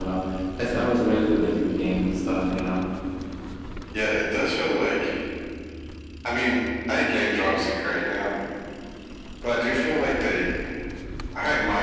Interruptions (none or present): none